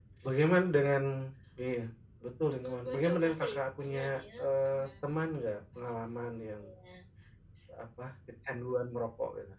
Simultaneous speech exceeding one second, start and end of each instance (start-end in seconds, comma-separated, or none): 2.6-5.8